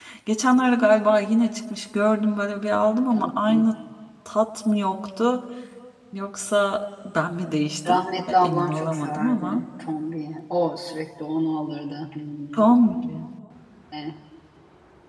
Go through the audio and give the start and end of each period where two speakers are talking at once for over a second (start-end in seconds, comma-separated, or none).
7.9-9.6